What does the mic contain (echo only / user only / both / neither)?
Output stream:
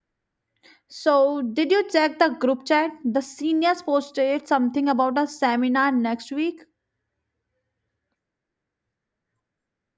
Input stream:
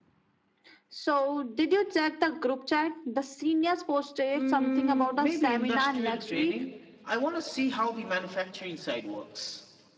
both